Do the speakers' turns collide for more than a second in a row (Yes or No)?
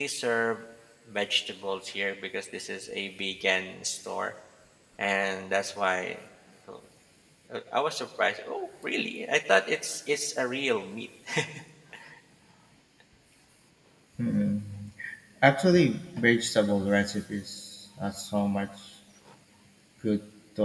No